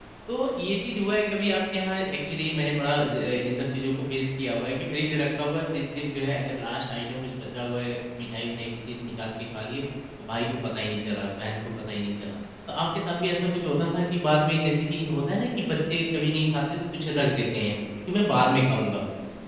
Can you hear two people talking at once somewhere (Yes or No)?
No